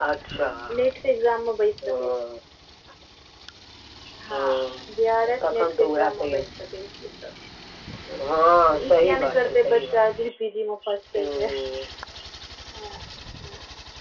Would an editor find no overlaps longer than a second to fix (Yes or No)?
No